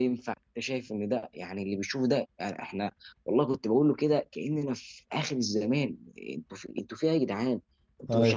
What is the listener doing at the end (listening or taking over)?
listening